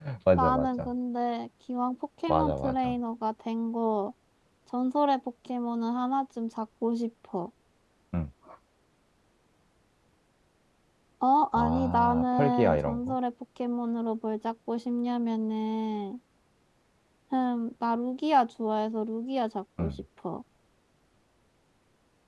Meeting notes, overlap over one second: present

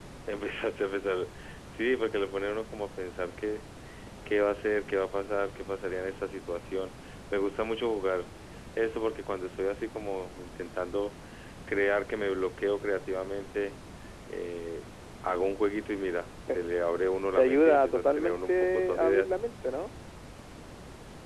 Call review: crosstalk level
present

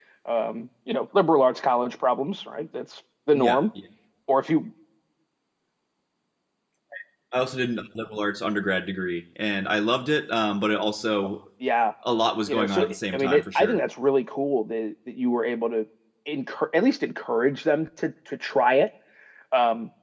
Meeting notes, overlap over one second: present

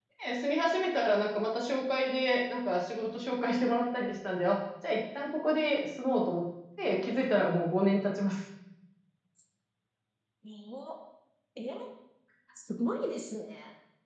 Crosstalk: none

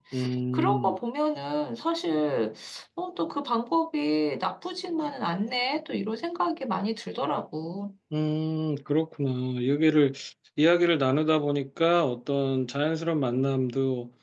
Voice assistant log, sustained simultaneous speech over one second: none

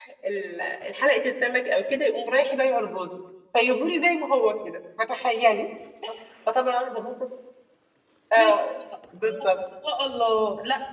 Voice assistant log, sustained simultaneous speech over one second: none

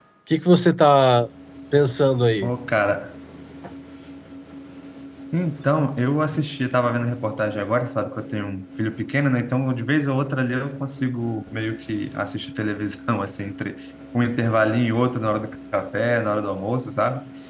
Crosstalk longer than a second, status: none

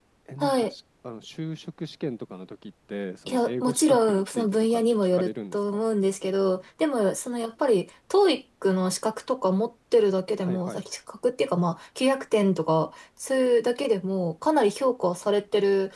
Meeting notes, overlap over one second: present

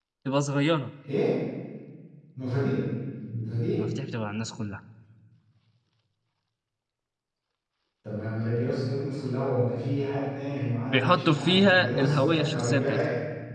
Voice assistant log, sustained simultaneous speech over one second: present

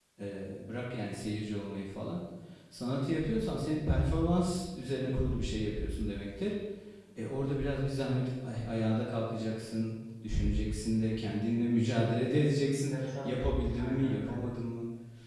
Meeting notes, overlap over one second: present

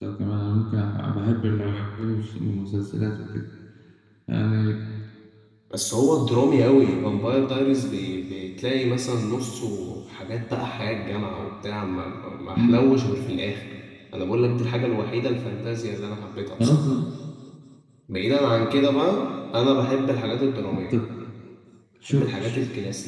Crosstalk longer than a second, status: none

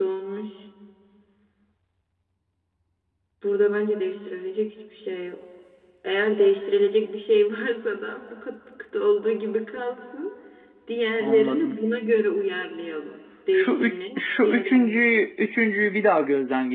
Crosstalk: present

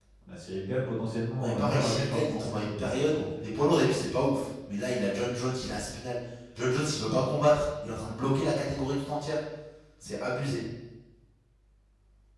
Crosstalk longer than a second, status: present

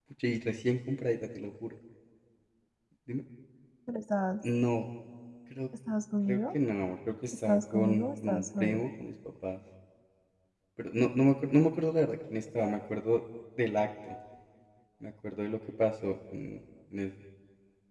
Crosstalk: present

